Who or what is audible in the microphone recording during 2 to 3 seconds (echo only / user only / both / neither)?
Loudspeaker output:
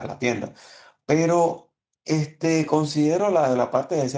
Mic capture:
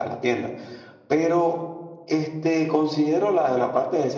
echo only